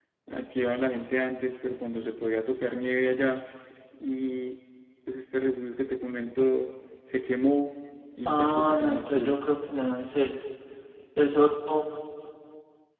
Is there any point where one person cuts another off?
Yes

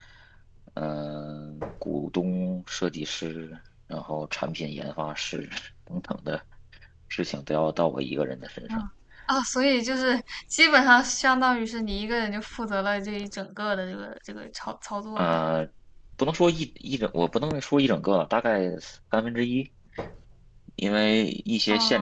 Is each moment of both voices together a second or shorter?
Yes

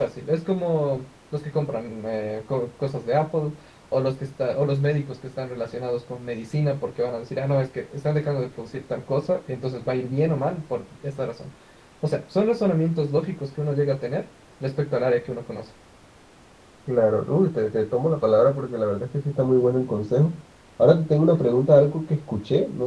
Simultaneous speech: No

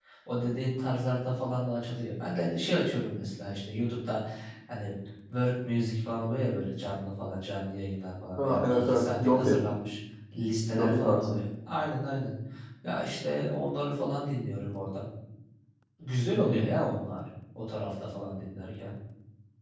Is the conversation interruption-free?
No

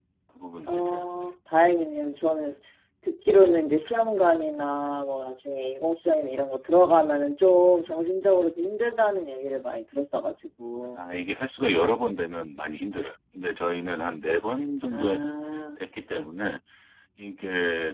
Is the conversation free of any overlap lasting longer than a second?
Yes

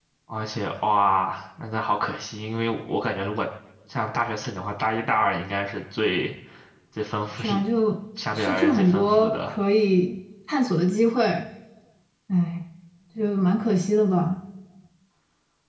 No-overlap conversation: No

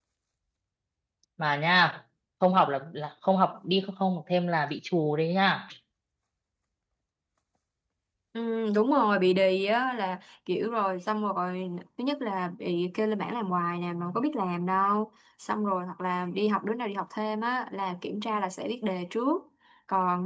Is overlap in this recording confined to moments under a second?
Yes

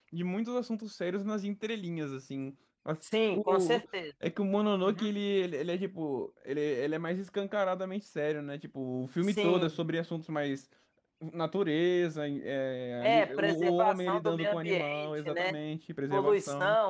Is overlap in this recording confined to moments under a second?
No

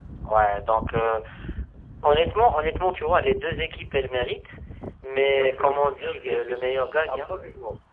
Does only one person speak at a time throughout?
No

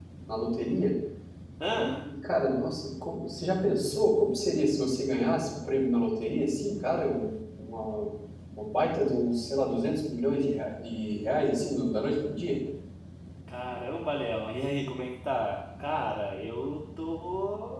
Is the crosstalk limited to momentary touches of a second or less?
Yes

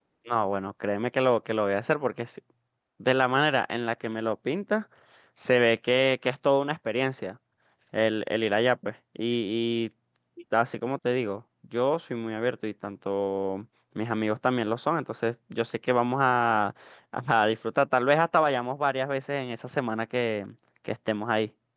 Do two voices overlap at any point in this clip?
No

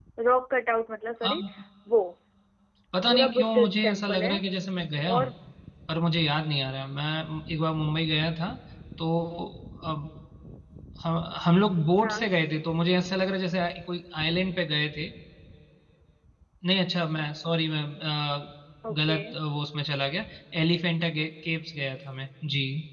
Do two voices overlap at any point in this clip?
Yes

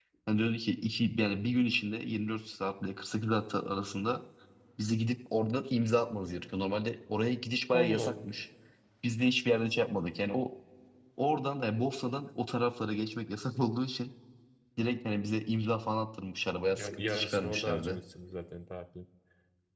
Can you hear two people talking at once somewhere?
Yes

